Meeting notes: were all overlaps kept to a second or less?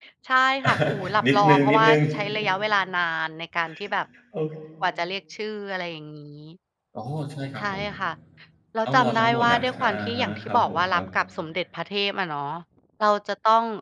No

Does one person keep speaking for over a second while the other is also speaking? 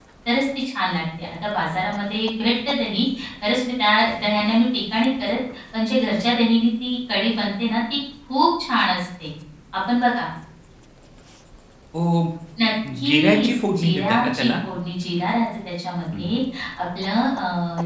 Yes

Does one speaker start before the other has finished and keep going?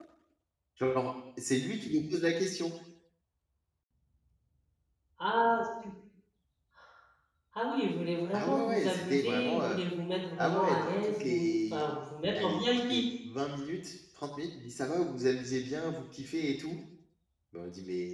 Yes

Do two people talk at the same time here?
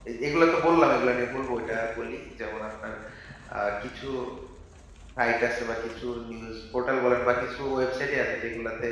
No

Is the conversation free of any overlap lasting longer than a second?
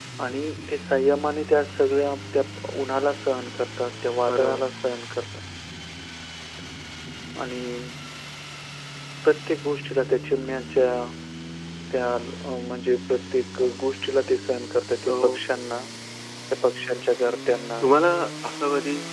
Yes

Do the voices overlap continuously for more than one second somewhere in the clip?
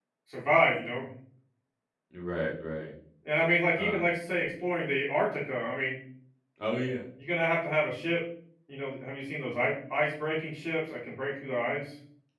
No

